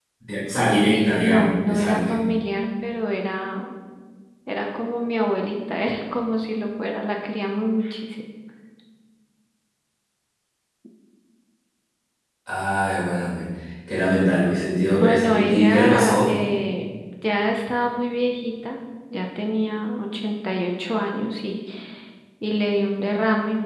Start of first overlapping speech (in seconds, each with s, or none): 0.9 s